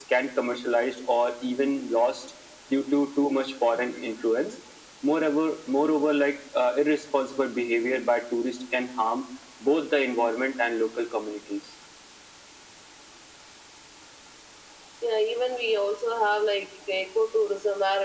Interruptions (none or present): none